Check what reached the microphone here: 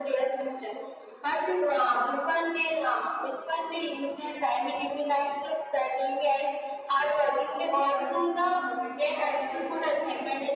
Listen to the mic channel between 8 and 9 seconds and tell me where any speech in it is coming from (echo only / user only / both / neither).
both